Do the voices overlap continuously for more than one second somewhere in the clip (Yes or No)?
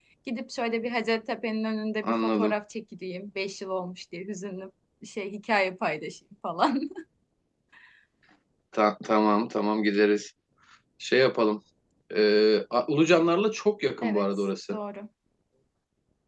No